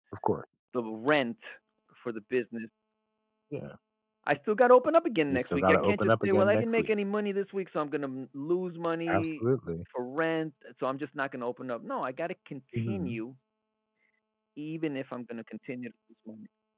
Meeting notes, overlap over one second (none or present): present